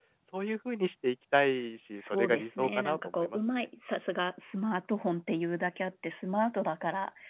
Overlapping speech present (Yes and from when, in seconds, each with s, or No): Yes, from 1.9 s